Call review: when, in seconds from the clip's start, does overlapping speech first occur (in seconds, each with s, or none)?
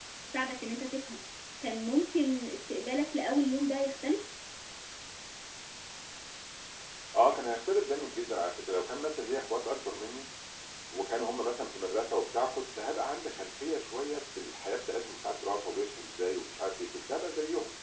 none